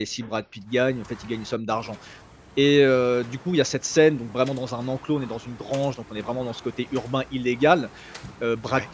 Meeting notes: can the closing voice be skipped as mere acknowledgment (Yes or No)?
Yes